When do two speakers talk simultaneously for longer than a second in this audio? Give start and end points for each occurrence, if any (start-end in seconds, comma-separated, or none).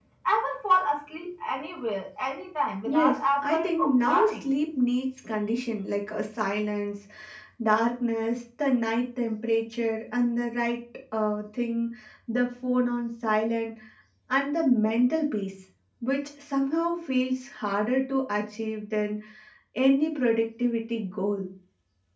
2.8-4.5